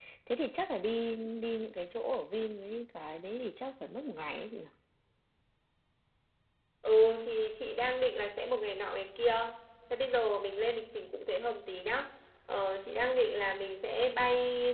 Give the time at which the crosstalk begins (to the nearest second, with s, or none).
none